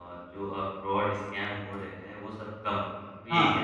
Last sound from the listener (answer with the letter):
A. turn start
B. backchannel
A